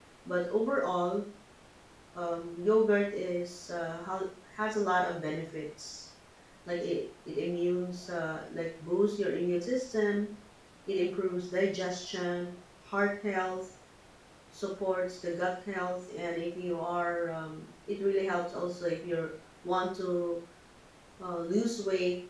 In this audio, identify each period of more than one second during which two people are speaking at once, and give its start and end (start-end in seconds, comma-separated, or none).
none